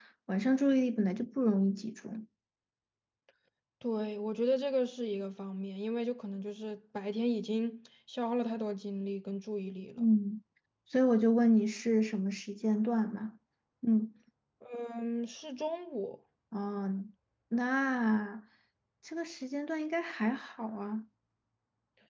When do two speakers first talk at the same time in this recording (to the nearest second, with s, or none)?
none